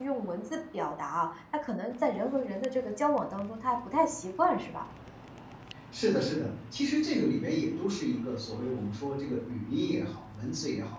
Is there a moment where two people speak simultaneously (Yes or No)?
No